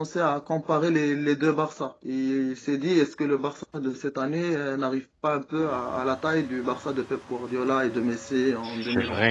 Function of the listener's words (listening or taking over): taking over